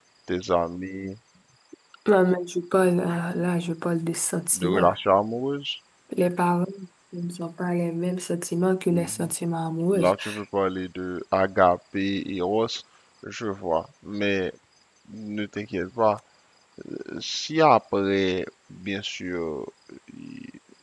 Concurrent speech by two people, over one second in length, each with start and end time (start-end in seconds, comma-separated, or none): none